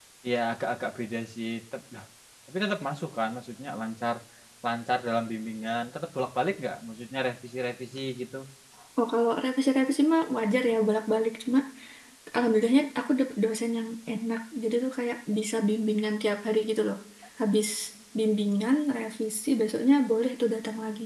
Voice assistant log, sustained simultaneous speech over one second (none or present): none